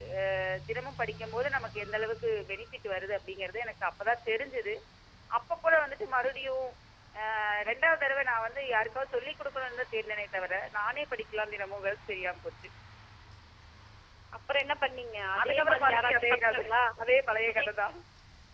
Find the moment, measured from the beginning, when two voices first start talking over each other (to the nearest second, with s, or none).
15 s